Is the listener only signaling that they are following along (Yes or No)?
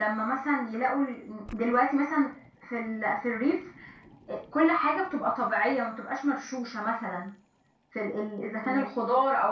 Yes